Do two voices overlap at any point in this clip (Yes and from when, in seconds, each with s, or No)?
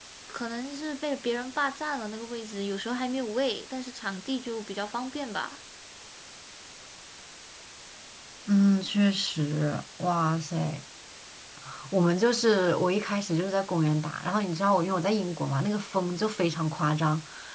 No